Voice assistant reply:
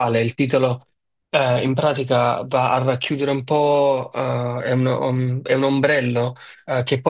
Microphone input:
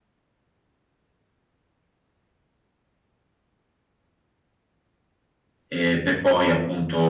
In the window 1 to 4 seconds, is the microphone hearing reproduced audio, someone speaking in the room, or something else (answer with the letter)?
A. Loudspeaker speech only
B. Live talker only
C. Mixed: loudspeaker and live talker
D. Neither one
D